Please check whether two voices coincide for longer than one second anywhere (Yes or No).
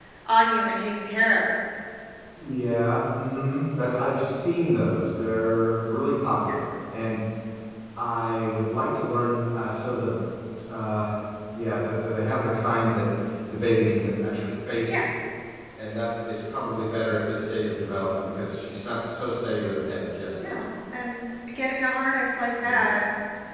No